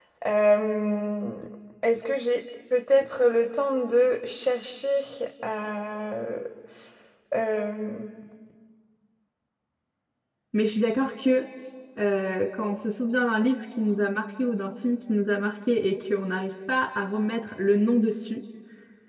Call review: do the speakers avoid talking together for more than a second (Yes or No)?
Yes